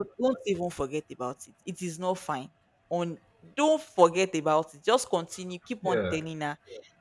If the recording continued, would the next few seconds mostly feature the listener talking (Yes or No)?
No